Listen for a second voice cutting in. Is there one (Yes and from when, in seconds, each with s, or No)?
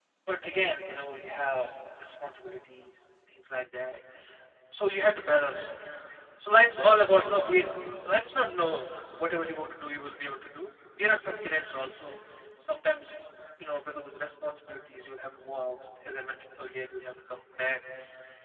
No